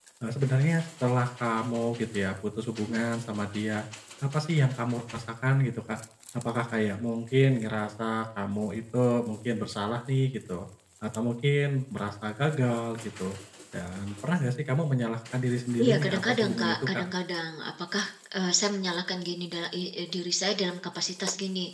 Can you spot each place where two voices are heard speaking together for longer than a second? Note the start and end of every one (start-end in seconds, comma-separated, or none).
15.8-17.1